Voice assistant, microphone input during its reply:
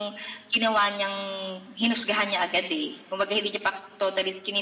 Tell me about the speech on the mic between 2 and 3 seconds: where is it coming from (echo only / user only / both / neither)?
echo only